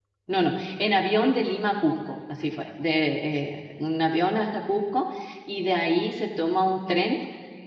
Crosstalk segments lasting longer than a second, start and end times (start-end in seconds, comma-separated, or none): none